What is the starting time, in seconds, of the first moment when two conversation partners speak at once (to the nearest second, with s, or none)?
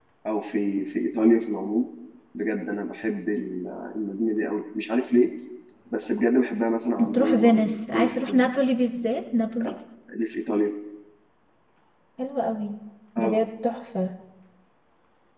7 s